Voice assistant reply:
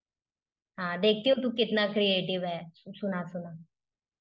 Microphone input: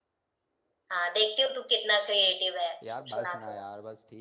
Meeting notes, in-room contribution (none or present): present